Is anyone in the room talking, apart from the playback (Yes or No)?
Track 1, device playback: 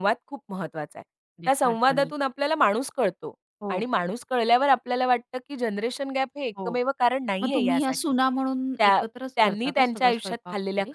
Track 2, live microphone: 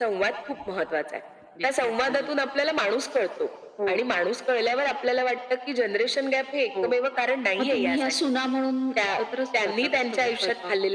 No